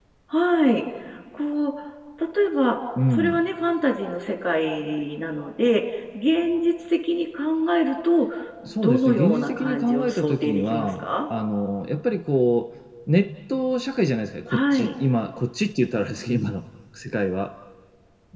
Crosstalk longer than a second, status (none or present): present